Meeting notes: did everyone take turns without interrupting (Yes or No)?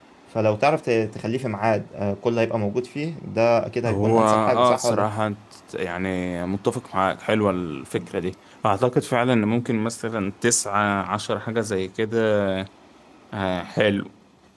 No